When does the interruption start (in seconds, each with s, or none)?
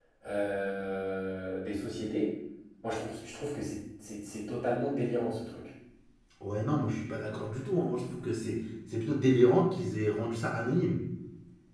none